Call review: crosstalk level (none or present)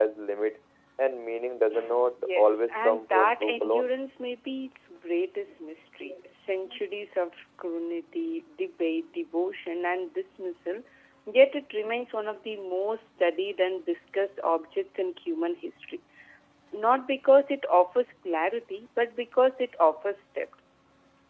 present